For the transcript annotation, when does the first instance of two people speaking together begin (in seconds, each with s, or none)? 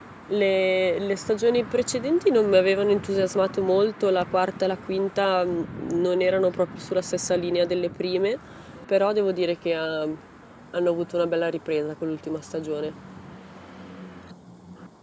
none